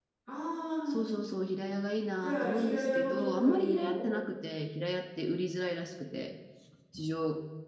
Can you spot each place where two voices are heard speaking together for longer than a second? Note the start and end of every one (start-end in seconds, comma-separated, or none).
2.2-4.1